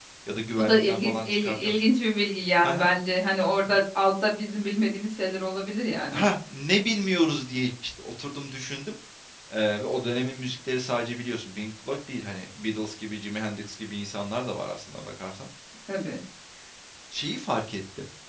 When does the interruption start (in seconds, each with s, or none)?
0.6 s